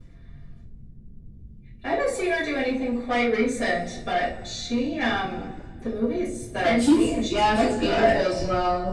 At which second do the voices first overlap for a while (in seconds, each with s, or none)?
6.6 s